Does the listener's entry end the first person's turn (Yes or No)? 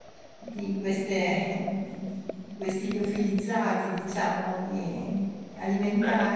No